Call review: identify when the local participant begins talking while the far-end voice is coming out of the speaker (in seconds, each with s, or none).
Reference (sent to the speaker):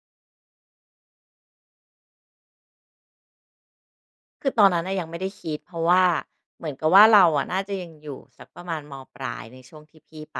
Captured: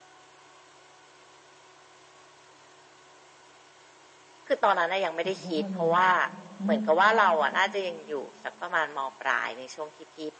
5.2 s